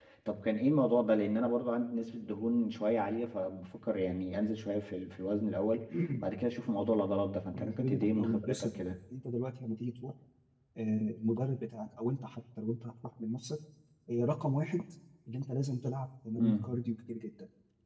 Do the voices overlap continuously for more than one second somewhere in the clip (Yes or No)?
Yes